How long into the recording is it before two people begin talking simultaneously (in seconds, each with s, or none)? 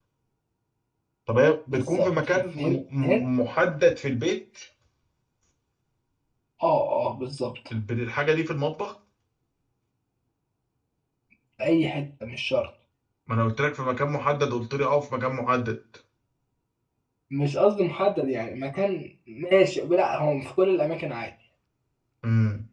1.7 s